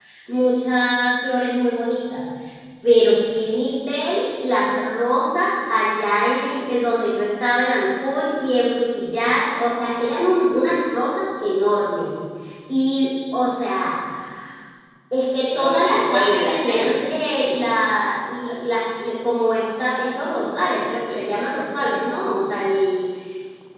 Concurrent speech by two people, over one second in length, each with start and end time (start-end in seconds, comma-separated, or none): 15.5-17.0